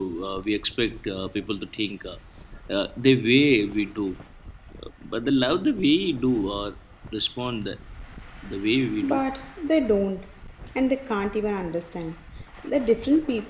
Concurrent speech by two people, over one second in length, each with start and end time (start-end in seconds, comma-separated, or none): none